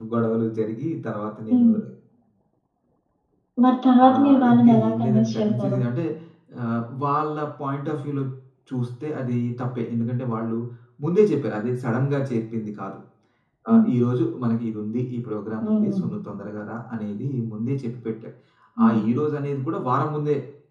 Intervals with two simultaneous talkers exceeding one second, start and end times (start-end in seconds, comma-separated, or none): 4.1-5.8